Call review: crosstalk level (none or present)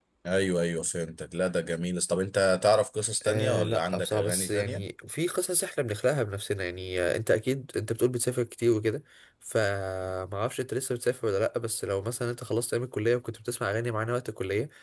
present